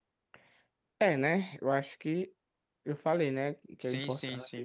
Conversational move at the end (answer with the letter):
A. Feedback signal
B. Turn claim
B